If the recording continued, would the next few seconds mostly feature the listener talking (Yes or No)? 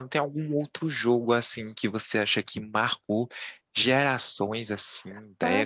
Yes